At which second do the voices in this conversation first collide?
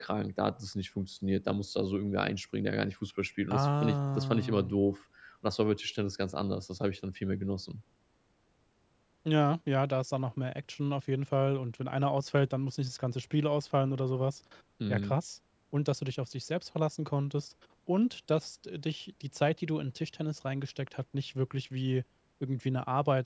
3.5 s

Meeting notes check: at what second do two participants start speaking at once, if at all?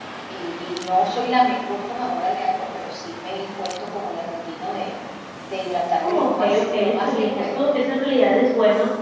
6.0 s

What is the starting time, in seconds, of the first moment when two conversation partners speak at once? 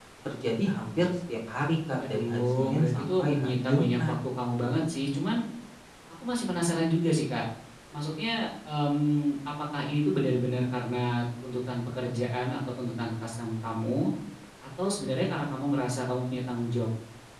2.0 s

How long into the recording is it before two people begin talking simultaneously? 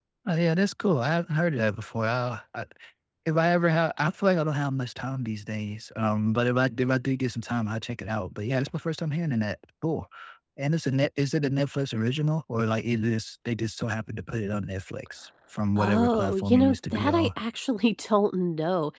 15.8 s

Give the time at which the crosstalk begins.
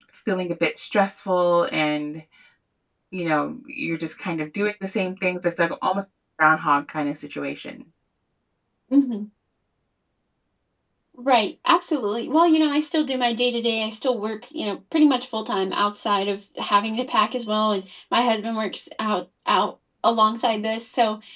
none

